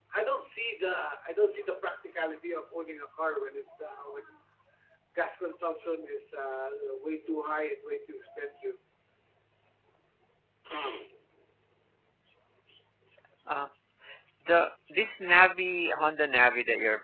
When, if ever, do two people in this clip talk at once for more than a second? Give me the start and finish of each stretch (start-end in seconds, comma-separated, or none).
none